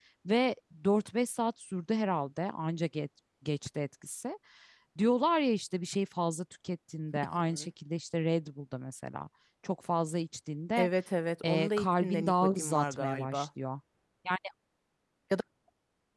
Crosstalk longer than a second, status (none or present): present